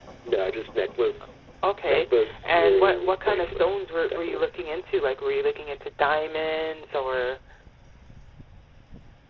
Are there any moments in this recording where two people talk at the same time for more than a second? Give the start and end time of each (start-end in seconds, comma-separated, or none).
1.9-3.6